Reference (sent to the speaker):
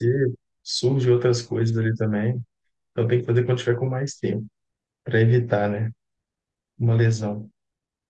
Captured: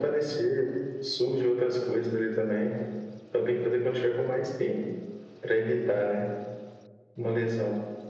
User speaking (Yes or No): No